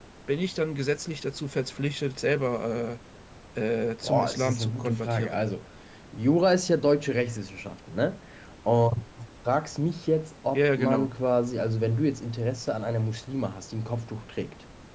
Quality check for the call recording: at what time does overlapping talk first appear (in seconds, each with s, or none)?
4.0 s